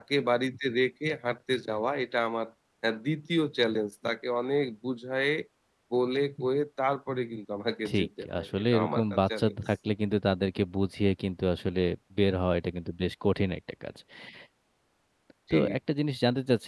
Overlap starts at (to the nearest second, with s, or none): 8 s